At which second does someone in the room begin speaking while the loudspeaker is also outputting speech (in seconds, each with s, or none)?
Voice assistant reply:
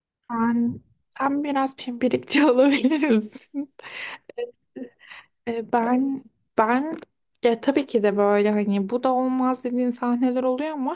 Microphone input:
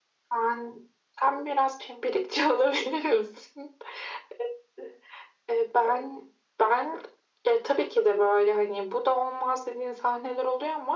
none